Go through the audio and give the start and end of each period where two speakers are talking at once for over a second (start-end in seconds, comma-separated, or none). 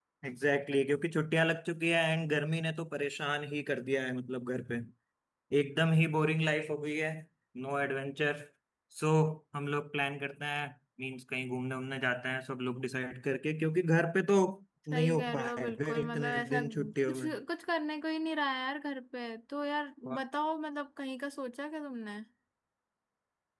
14.9-17.3